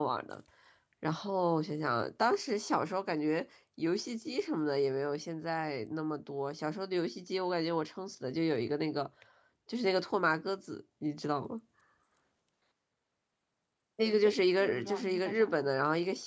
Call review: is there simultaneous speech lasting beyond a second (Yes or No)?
Yes